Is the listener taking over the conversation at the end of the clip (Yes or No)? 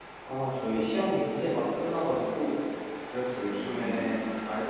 No